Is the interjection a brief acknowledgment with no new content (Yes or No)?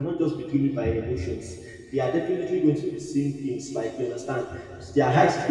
Yes